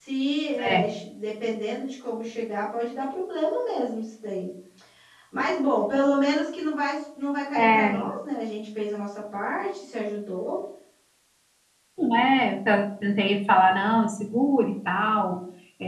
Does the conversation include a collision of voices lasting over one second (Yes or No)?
No